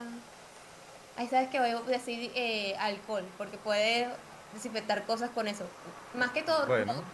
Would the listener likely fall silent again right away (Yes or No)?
Yes